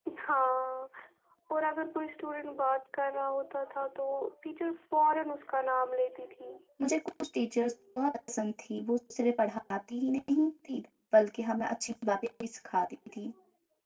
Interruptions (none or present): none